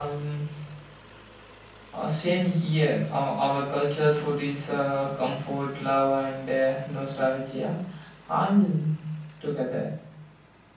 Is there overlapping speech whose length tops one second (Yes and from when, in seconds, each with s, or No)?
No